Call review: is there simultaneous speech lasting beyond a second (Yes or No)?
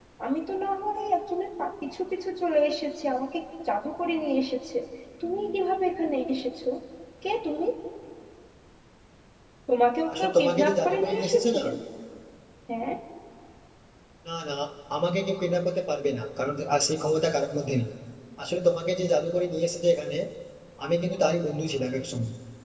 Yes